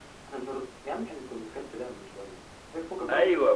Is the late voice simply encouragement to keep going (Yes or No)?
No